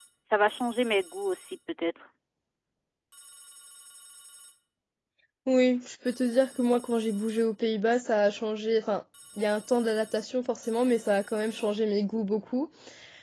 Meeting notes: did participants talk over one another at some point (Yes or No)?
No